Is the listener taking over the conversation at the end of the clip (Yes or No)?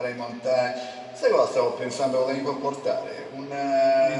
No